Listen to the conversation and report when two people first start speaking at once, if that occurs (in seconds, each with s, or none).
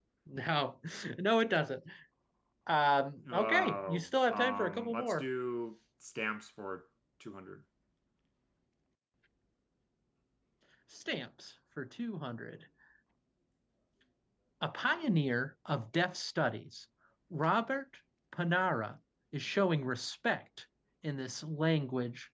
3.3 s